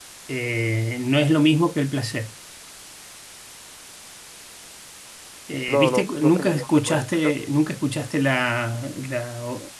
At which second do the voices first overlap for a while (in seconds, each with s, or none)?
5.7 s